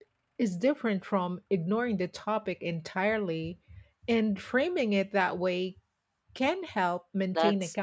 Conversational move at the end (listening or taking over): taking over